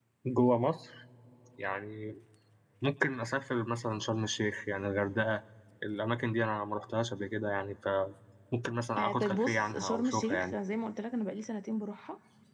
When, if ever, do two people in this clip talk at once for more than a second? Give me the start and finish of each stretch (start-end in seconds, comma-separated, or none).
9.0-10.6